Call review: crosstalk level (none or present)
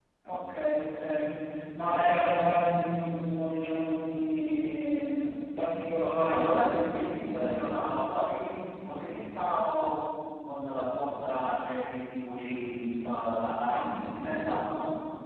present